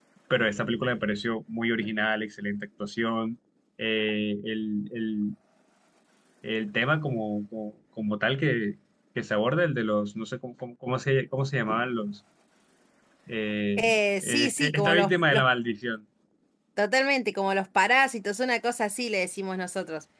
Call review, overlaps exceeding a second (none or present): present